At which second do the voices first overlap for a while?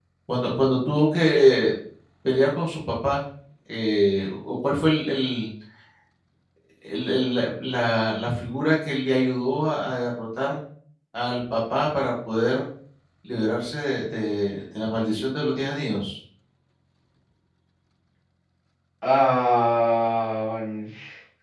none

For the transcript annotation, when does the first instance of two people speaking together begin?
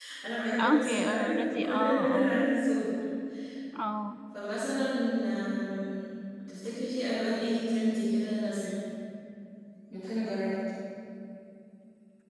1 s

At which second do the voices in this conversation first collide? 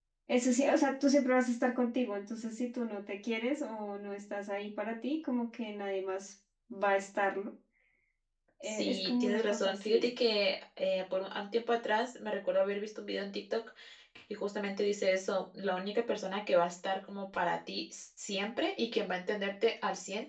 9 s

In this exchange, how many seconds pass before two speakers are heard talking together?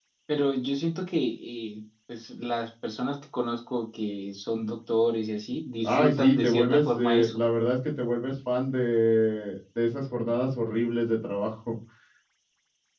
6 s

